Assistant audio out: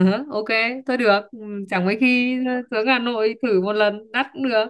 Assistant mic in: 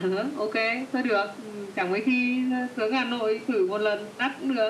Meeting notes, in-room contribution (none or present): none